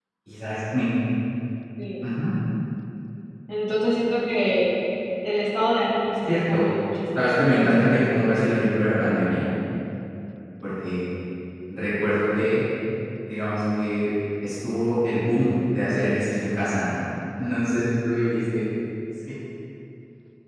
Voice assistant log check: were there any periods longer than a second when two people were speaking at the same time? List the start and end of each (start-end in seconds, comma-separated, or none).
7.2-8.4